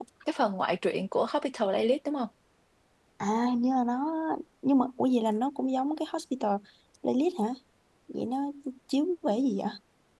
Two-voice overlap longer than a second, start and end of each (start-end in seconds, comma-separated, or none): none